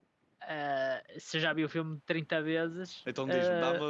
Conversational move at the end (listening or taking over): taking over